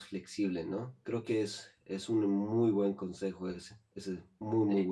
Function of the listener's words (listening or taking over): taking over